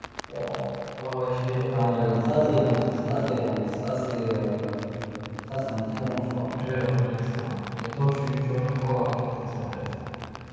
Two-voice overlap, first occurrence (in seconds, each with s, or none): 1.7 s